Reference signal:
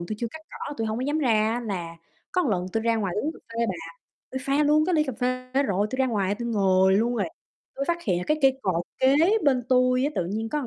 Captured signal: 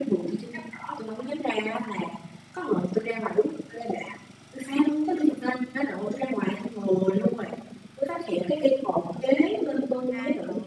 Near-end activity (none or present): present